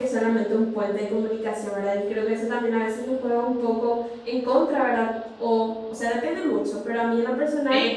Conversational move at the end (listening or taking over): taking over